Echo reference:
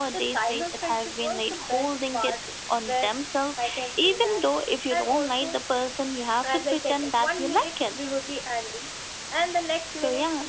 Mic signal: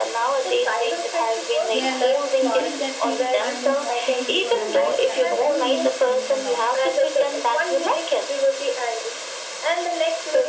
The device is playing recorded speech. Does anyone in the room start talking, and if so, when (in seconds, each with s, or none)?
1.7 s